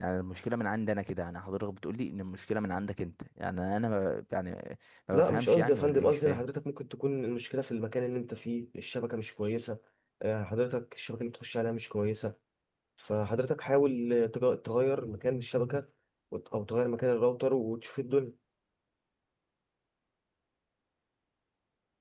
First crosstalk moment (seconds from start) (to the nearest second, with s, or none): 5 s